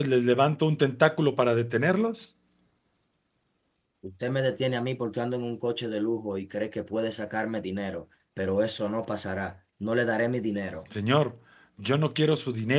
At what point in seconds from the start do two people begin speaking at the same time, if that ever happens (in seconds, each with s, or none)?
none